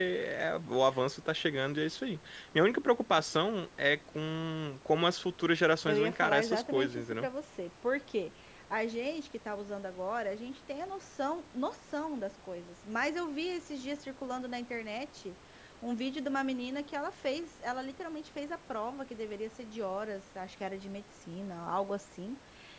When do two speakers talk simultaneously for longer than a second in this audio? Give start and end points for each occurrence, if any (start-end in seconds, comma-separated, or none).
5.9-7.3